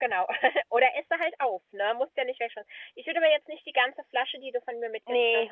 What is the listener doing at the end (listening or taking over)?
listening